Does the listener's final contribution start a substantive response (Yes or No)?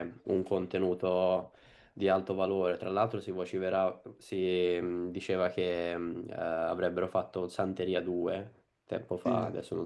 Yes